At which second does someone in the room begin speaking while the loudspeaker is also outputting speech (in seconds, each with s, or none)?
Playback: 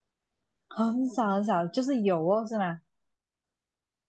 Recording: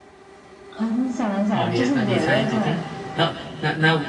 1.5 s